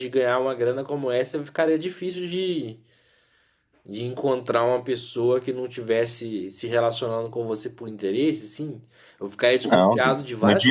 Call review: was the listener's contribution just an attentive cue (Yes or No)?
No